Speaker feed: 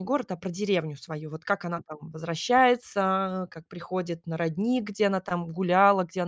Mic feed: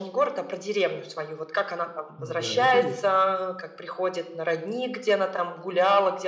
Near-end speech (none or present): present